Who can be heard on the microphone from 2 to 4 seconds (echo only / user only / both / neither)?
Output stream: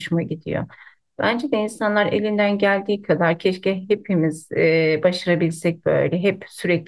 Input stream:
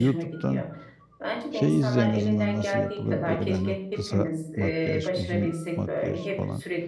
both